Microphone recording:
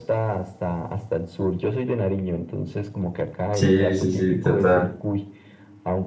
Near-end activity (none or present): present